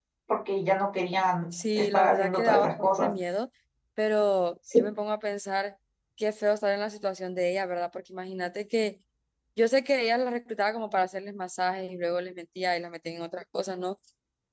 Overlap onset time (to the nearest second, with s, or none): 2 s